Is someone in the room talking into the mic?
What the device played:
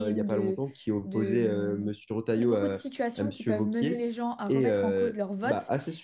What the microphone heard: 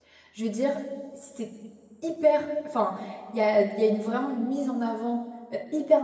Yes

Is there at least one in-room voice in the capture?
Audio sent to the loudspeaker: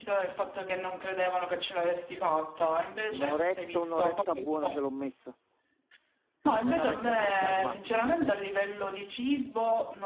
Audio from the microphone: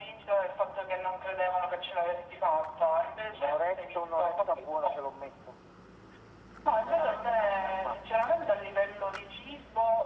No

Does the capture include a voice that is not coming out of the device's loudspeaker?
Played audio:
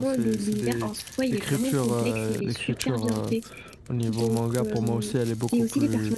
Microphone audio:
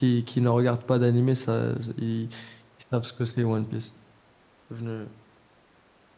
Yes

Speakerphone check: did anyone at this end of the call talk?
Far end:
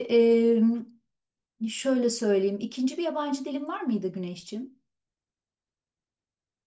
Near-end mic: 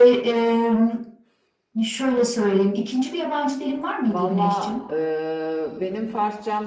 Yes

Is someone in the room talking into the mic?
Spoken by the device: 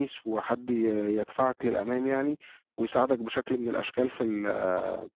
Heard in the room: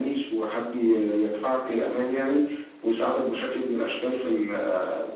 No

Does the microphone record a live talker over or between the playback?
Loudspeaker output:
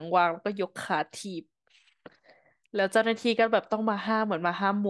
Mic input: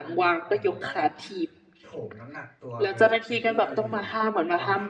Yes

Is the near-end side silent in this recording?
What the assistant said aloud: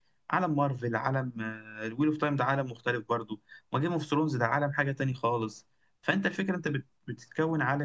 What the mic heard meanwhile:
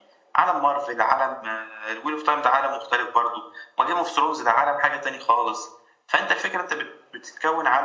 Yes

